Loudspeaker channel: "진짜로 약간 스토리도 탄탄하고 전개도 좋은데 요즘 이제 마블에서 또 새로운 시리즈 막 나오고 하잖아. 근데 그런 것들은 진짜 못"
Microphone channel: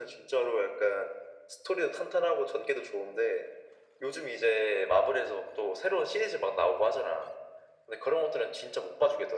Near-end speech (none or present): none